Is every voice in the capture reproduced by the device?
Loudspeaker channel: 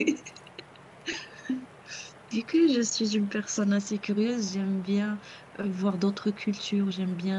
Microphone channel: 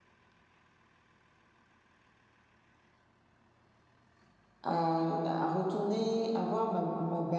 No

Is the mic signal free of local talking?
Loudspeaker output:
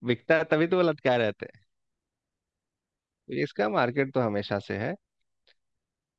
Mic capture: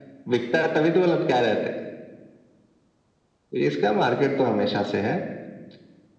Yes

